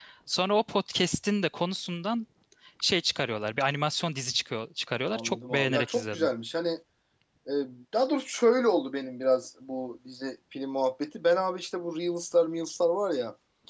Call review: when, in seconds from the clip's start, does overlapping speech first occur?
5.1 s

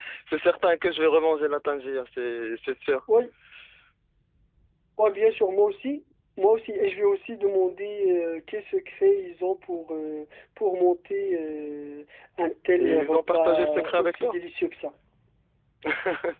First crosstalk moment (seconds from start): 12.7 s

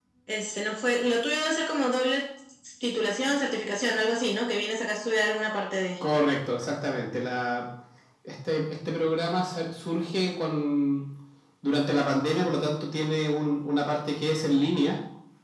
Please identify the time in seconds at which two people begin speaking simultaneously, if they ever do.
none

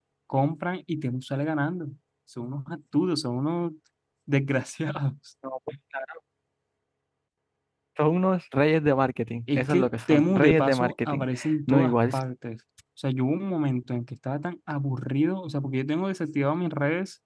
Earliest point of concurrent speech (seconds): 9.5 s

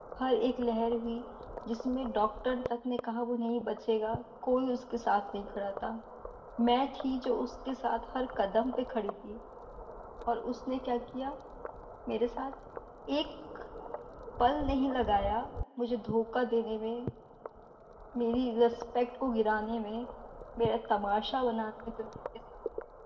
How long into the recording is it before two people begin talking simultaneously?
none

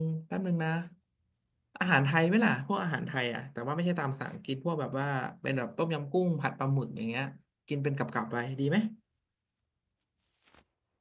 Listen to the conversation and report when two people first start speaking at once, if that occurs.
none

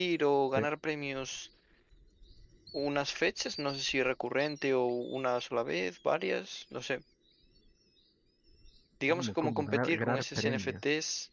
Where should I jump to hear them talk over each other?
9.1 s

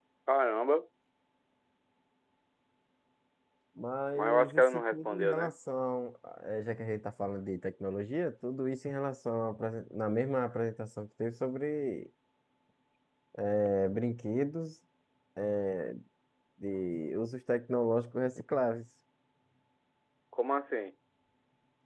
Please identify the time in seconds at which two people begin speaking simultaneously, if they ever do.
4.2 s

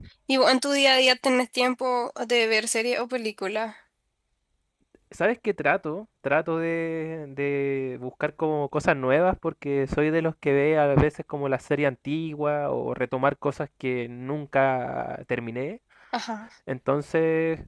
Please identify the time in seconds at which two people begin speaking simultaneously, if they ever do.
none

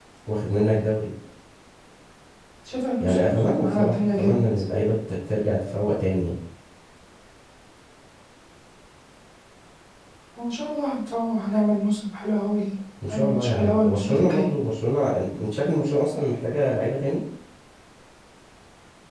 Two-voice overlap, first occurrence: 3.0 s

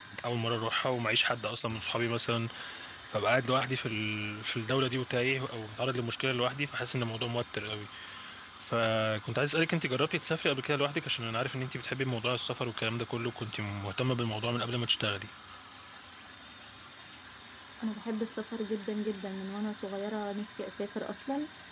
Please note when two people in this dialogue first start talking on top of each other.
none

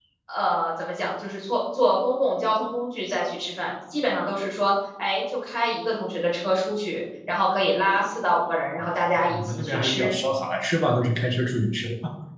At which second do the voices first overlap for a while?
8.8 s

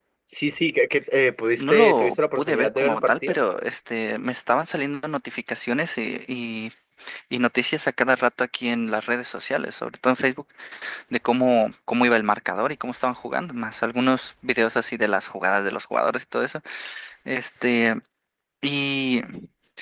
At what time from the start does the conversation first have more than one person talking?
1.6 s

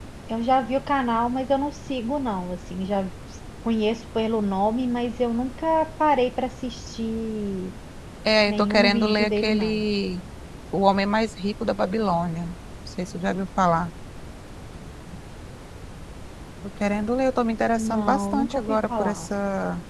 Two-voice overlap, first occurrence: 8.5 s

